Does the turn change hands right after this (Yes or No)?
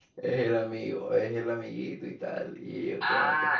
Yes